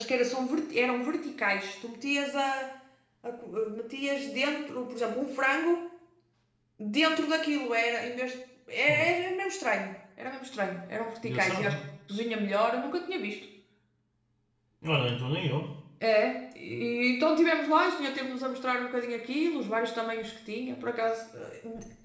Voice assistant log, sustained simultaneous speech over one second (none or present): none